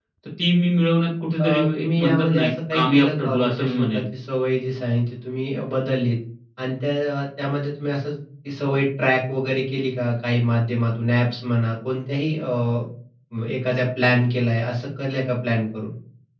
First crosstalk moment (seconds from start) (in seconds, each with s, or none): 1.4 s